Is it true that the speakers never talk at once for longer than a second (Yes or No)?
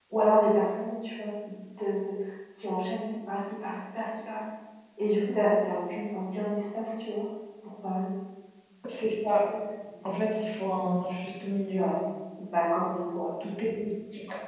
Yes